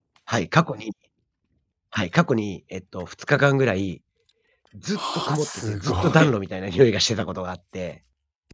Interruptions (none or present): present